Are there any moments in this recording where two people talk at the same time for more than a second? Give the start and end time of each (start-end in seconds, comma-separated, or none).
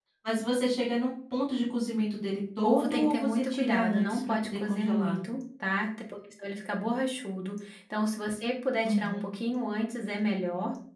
2.6-5.2